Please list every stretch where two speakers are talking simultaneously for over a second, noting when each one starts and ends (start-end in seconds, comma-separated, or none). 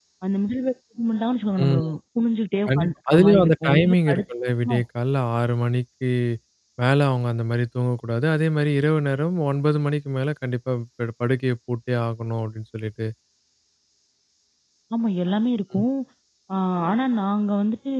2.7-4.2